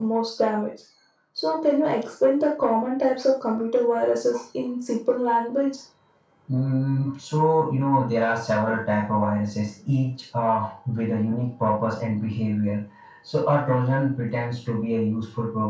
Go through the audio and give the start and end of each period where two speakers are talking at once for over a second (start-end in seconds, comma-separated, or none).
none